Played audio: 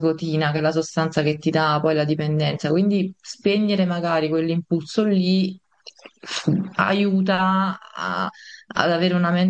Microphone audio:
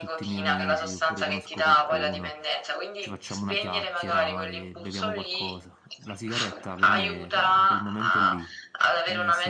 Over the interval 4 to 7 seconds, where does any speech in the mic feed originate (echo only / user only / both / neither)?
both